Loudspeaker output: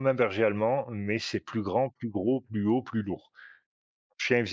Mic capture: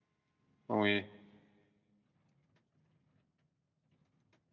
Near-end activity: present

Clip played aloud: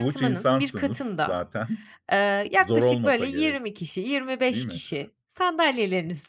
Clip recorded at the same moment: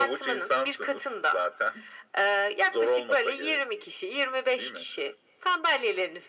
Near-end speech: none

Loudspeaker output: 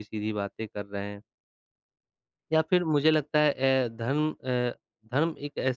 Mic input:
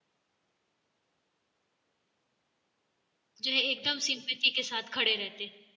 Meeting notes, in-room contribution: present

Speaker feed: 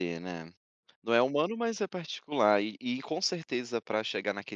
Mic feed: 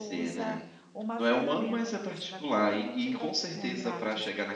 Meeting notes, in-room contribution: present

